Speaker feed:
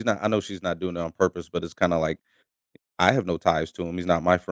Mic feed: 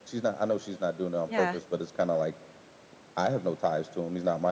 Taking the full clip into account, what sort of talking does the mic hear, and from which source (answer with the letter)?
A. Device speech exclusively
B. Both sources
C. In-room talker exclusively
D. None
B